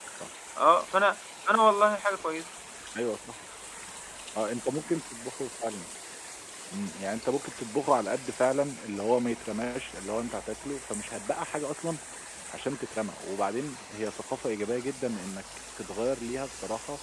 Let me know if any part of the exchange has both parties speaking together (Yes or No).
No